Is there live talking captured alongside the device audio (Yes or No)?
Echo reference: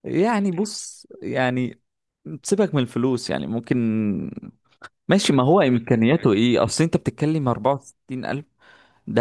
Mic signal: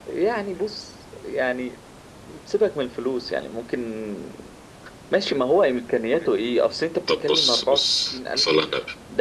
Yes